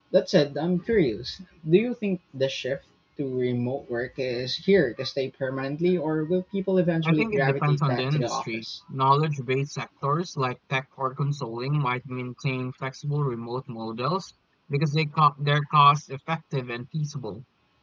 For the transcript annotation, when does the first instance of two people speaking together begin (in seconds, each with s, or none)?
7.0 s